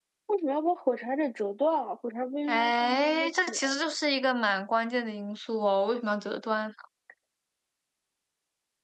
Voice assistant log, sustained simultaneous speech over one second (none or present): present